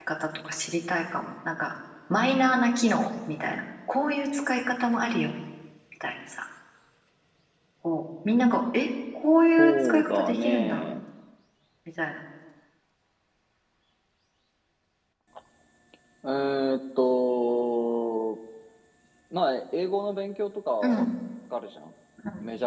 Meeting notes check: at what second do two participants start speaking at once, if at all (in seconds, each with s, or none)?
9.6 s